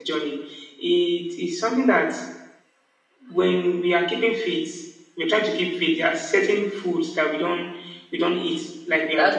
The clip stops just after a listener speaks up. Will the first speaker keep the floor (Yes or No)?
No